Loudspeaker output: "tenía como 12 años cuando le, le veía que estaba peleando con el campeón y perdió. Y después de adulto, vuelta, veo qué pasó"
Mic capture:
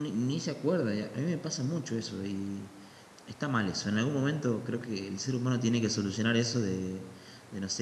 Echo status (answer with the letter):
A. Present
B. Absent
B